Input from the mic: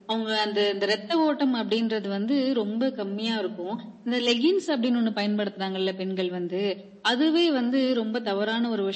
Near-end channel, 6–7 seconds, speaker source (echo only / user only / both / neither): echo only